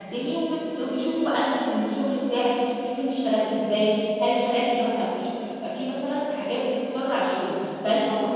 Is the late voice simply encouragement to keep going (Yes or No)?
Yes